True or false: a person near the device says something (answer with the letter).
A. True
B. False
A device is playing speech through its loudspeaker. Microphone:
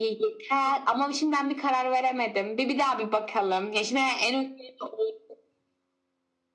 B